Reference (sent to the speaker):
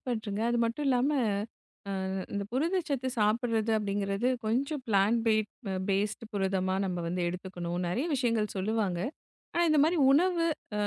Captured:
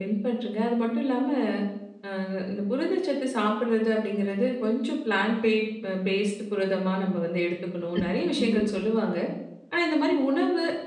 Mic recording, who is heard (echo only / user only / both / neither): both